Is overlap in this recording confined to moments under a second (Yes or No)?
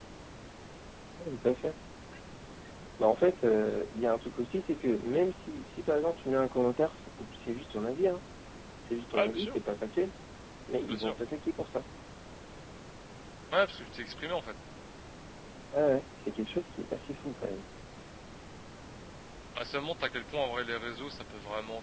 Yes